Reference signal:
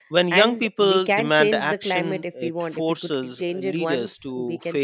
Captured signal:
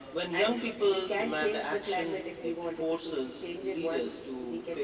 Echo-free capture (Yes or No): No